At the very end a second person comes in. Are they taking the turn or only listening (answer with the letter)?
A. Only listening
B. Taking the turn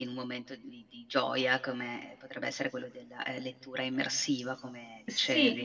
B